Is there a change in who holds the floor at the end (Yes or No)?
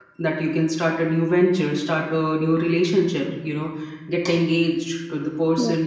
No